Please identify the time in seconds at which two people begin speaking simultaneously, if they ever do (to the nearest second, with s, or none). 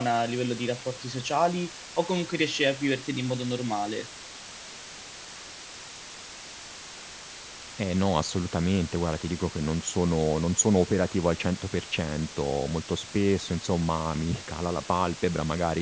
none